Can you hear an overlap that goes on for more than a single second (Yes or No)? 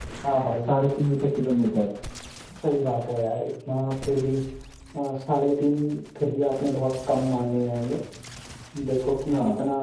No